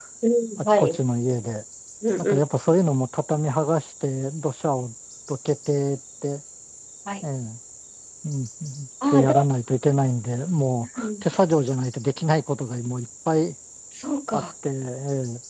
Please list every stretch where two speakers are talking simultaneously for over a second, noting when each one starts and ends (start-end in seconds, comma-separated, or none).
none